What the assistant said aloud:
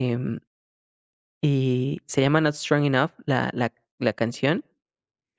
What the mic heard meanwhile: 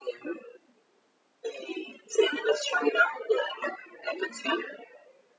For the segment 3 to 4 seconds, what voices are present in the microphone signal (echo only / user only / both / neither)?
echo only